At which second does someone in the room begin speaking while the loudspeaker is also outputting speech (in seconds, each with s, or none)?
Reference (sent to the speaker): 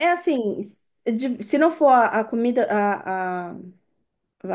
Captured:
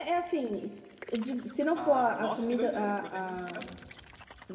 1.7 s